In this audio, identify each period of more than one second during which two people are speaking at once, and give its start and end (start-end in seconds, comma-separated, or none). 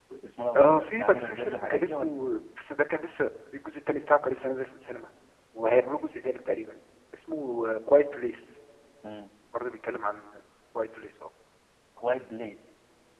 0.6-2.1